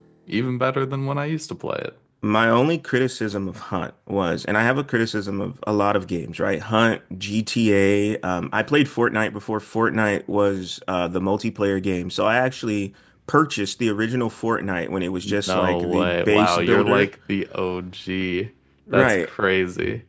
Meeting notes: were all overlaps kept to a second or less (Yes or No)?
No